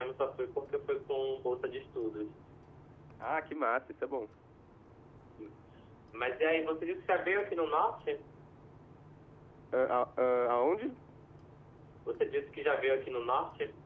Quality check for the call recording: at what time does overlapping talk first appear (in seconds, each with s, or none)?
none